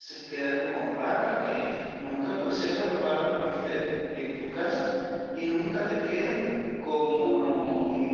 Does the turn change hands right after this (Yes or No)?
No